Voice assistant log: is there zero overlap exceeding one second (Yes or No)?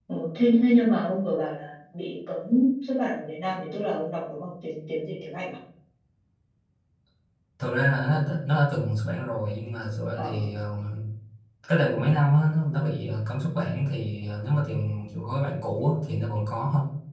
Yes